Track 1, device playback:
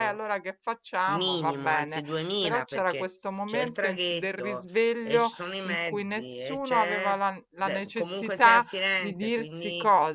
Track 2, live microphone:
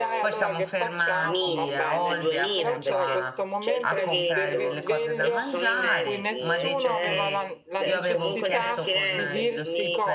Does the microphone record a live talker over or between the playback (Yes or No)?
Yes